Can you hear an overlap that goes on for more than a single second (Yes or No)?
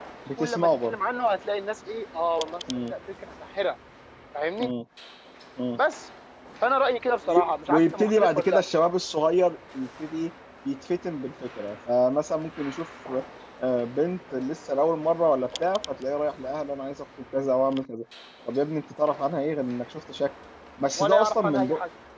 Yes